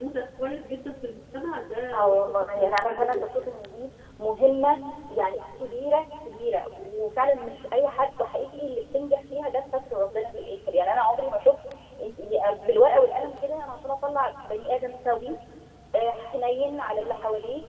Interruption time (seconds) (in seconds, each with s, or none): 1.9 s